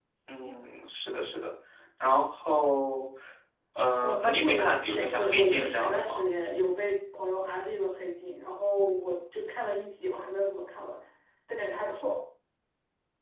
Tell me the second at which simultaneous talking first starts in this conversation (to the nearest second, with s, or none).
4 s